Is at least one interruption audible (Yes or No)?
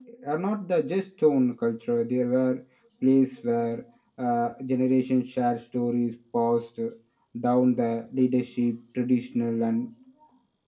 No